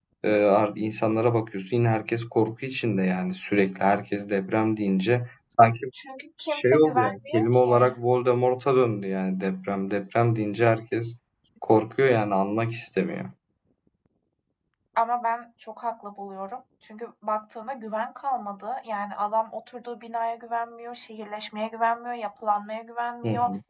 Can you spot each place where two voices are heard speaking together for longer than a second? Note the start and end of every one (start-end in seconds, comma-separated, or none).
6.5-8.0